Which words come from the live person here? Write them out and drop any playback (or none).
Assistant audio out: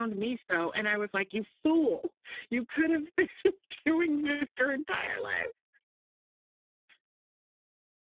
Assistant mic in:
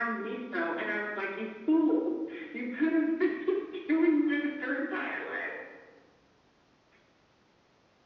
none